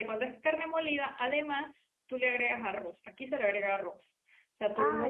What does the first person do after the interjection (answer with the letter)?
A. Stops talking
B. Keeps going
B